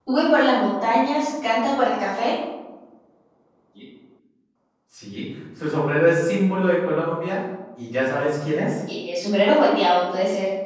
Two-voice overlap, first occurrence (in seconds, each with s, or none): none